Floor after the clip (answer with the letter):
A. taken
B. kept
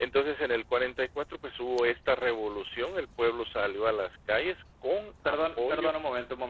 A